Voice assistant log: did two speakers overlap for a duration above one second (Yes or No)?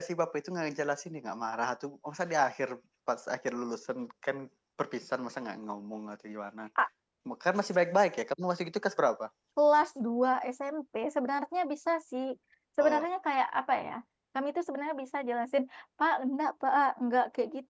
No